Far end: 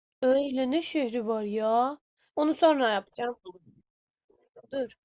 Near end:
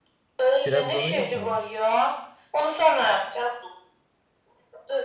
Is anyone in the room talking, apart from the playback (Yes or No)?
Yes